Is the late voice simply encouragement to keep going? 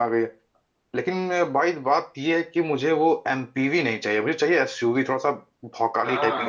No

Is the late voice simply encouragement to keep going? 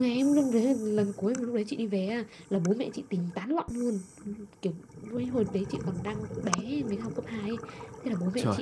Yes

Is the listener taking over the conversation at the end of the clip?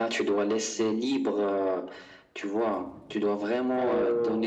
No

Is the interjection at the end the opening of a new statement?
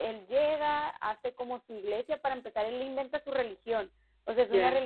No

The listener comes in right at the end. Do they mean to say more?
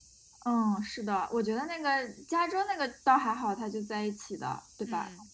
No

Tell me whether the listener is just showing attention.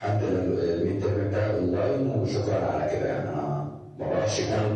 No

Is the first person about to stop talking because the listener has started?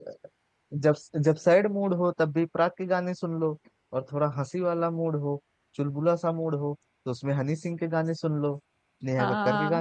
Yes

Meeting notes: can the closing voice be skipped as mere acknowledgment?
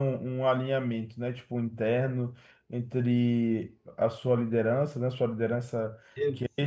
Yes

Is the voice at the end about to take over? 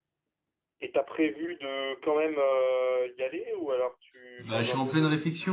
Yes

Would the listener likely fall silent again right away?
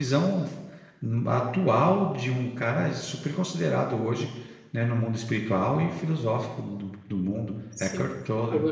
No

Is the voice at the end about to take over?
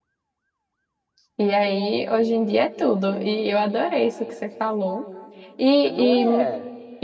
No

